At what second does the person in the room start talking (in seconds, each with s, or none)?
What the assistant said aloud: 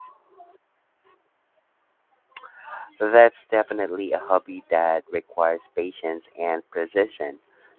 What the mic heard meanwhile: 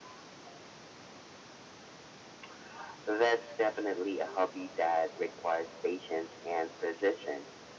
none